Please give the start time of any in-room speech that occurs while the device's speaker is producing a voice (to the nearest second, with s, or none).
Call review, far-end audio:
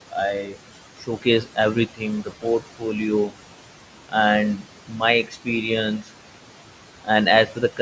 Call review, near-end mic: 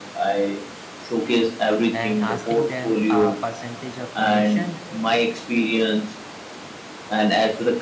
2 s